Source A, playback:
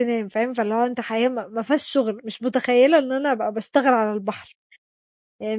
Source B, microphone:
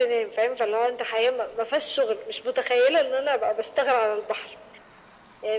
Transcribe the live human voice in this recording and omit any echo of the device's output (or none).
none